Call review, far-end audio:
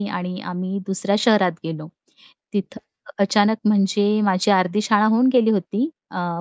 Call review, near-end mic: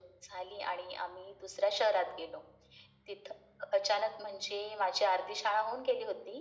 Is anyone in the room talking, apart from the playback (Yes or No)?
No